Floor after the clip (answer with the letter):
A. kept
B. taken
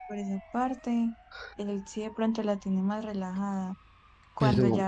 A